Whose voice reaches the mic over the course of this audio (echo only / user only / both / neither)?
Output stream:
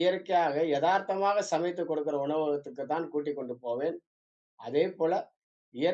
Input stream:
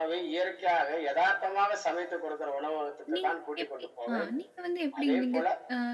both